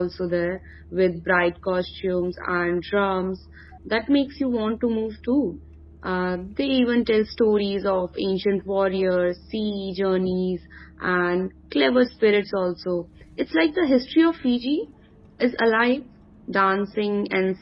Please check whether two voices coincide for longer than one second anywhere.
No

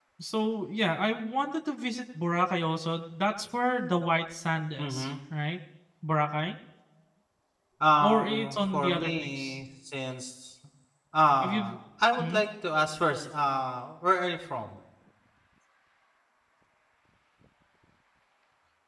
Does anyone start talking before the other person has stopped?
Yes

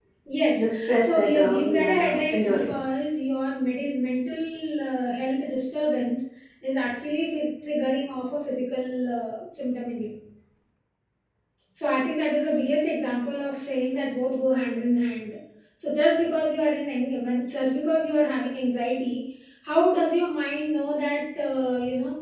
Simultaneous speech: Yes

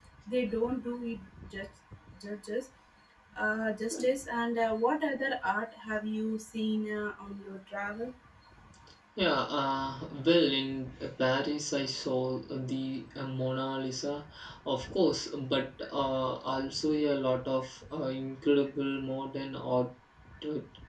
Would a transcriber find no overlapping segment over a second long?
Yes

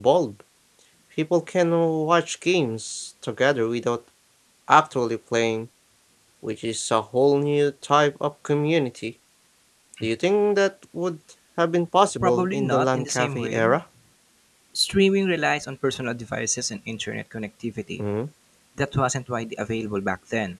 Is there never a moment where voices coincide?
No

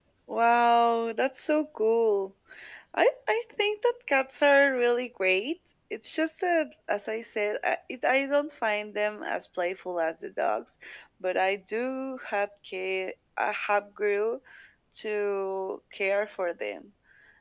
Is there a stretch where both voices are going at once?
No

